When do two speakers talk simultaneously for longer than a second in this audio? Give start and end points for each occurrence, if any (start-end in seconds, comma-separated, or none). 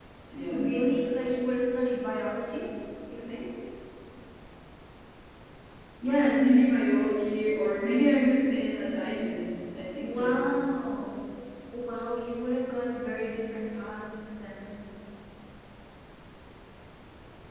none